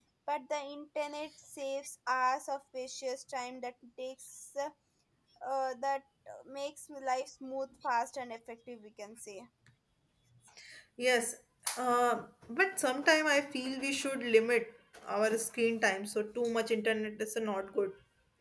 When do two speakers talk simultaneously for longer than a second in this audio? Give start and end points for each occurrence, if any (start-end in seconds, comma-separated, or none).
none